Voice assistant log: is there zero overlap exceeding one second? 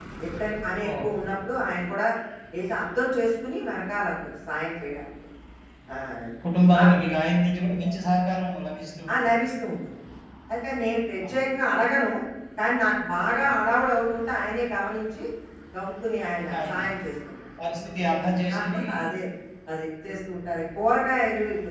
Yes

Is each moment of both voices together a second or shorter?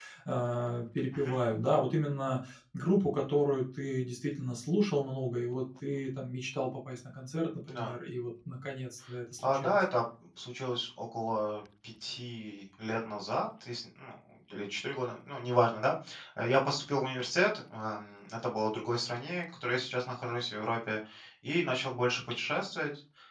Yes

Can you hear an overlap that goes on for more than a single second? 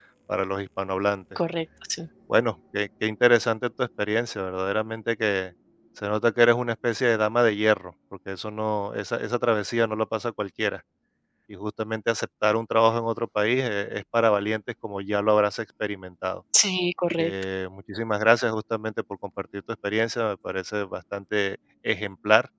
No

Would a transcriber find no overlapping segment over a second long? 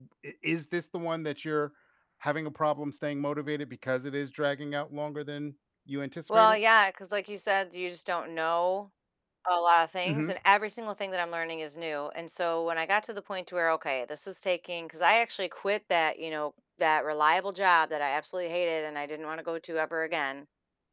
Yes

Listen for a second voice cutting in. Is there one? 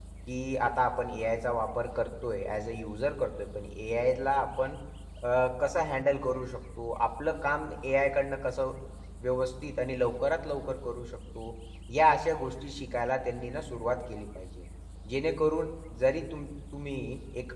No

